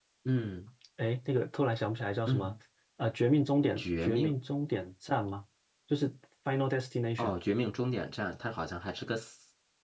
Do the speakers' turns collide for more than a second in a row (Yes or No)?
No